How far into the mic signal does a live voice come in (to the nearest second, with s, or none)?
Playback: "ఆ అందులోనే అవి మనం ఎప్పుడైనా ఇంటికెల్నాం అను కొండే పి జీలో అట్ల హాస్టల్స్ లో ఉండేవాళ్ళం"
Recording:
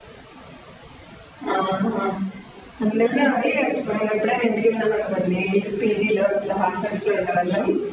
none